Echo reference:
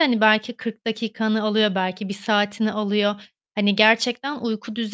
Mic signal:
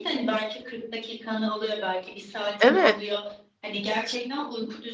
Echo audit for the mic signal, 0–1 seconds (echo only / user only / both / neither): echo only